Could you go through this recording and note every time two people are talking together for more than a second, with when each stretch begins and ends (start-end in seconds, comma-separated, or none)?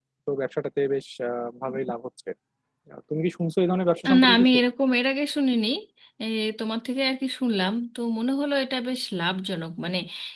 none